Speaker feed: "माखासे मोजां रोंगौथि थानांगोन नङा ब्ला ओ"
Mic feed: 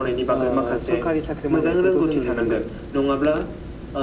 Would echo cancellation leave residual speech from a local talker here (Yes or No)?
Yes